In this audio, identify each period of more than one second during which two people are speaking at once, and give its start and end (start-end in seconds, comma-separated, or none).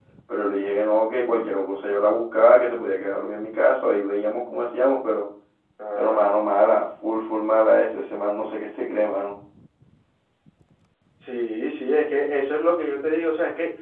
none